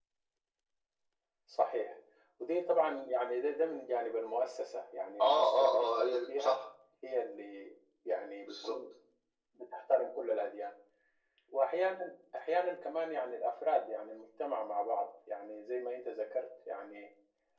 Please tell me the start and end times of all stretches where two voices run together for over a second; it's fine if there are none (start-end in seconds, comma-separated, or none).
5.2-6.6